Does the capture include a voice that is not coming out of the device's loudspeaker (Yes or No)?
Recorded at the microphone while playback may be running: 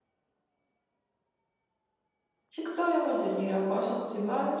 Yes